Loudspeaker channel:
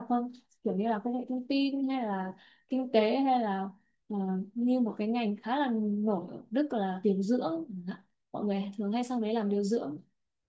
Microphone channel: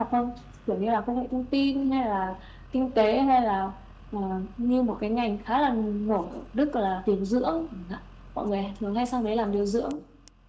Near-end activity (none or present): none